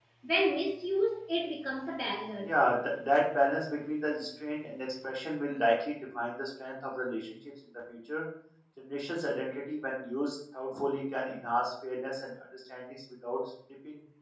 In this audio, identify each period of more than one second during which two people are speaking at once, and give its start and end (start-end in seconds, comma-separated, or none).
none